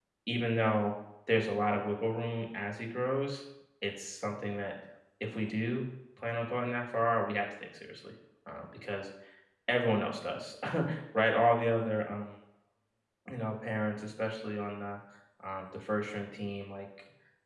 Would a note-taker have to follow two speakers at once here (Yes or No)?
No